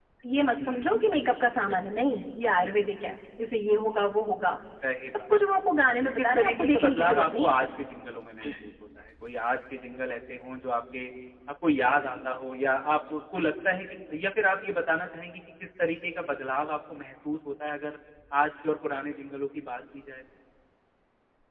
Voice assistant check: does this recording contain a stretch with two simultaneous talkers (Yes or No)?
Yes